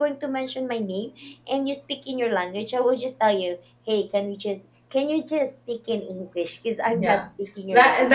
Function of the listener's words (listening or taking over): taking over